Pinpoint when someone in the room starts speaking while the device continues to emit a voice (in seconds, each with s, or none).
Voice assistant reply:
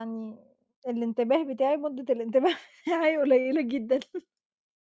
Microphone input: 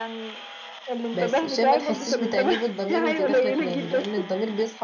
1.1 s